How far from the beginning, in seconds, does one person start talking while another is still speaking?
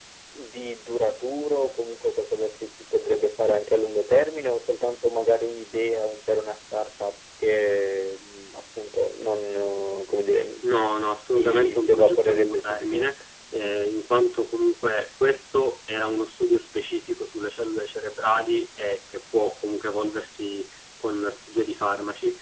11.2 s

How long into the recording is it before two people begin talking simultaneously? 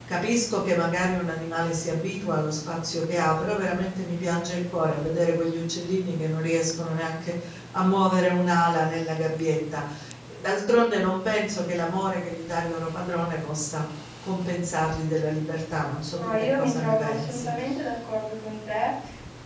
16.2 s

